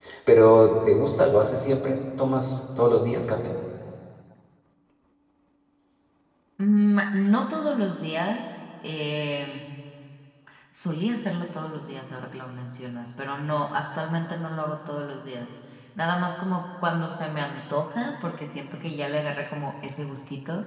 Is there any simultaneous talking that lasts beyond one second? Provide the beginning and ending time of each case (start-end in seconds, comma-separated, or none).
none